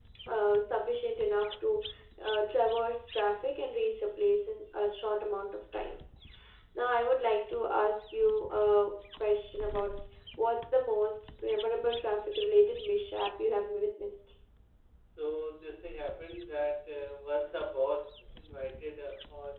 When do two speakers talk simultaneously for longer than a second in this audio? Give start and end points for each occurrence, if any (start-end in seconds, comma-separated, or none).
none